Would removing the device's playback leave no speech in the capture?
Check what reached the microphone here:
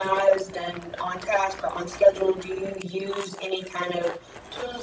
Yes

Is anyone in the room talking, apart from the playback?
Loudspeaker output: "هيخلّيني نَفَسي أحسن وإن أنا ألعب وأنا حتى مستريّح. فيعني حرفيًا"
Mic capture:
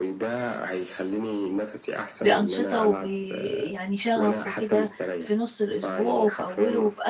Yes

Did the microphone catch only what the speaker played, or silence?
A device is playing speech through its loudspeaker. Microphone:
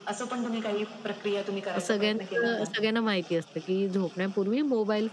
No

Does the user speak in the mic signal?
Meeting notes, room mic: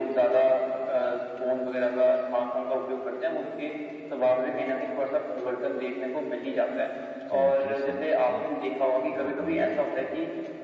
Yes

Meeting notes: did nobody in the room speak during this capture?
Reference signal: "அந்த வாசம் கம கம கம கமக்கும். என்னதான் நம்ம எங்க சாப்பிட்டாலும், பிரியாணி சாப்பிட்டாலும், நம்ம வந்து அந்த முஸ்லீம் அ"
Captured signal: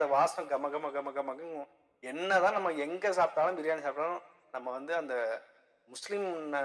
Yes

